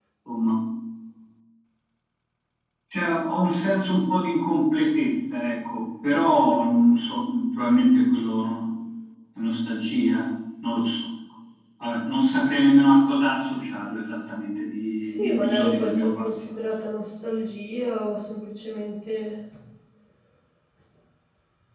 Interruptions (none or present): present